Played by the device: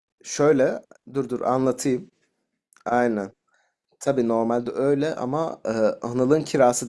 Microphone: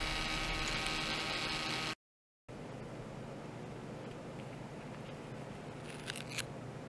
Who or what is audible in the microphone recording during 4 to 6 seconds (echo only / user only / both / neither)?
neither